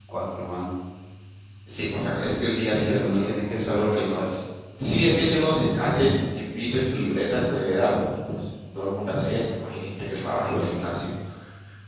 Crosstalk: present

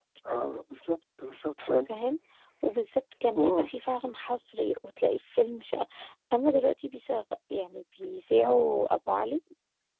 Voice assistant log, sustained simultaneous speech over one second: none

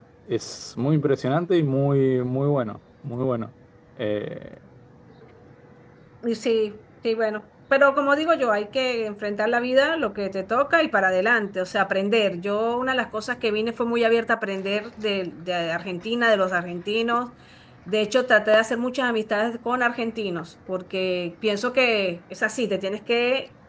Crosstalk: none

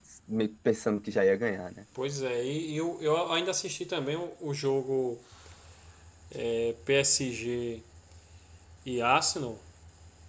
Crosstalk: none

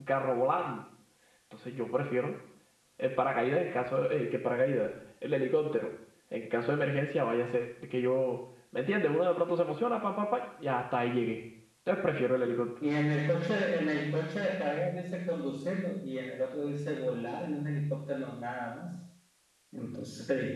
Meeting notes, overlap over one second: none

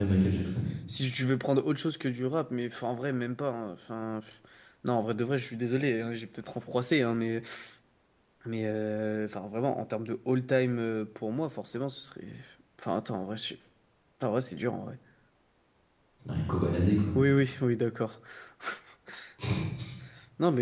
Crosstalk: none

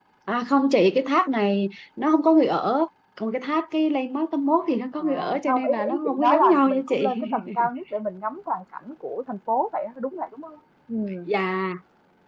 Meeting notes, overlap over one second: present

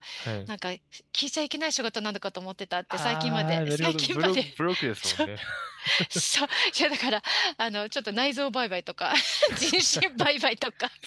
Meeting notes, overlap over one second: present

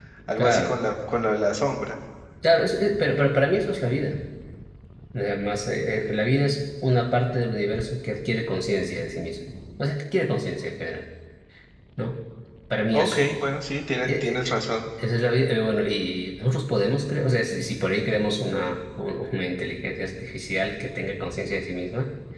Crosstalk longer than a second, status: none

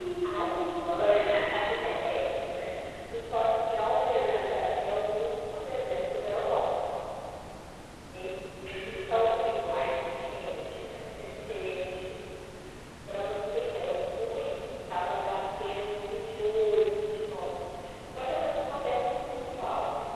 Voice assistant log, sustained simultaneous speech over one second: present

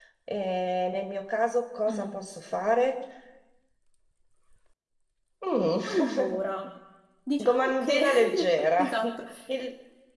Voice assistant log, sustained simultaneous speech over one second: present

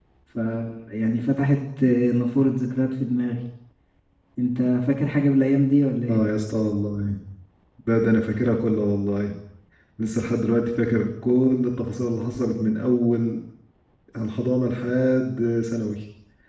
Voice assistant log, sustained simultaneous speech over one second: none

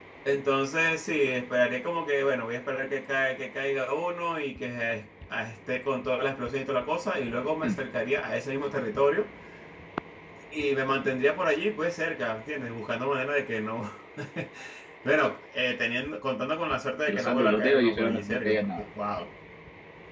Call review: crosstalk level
present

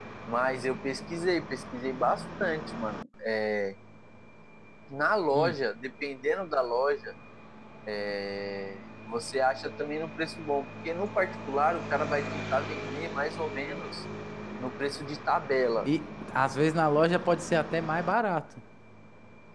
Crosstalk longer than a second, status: none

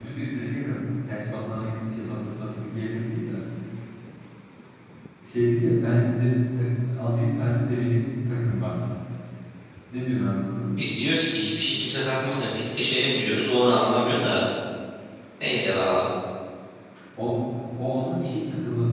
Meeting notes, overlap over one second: none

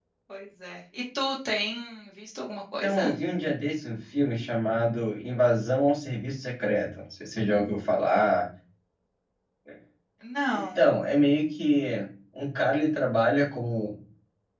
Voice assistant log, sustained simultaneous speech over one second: none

